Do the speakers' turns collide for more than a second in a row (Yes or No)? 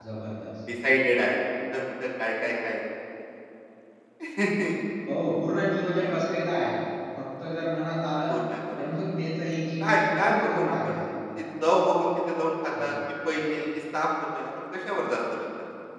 Yes